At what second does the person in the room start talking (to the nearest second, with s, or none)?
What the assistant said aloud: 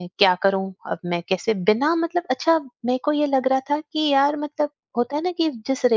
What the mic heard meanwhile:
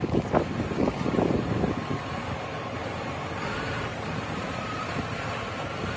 none